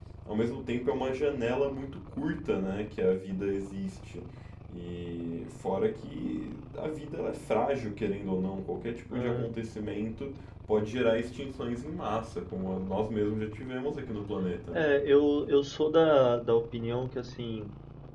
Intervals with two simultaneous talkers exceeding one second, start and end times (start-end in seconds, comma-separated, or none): none